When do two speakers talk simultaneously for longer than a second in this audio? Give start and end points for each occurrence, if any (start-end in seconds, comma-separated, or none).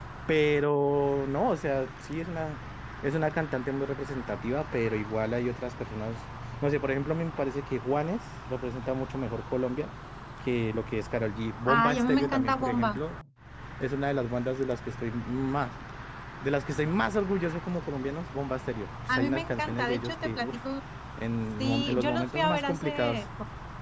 11.7-12.9, 19.1-20.6, 21.6-23.2